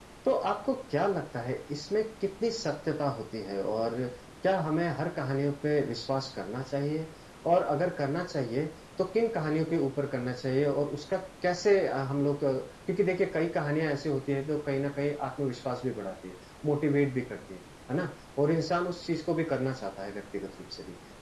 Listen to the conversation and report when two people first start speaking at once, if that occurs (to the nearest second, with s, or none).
none